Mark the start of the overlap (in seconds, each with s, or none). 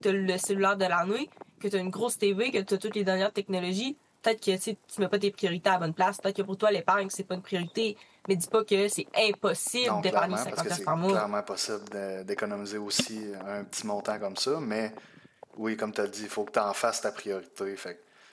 9.8 s